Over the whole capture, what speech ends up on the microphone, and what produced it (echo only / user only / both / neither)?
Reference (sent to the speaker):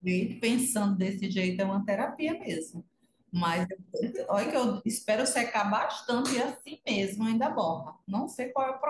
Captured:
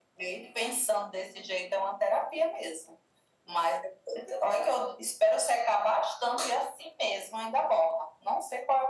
echo only